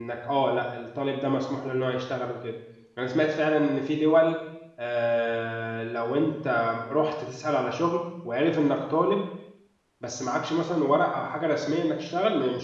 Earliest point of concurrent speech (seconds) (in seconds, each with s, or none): none